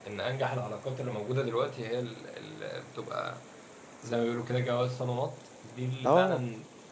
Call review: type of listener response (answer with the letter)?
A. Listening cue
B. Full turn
A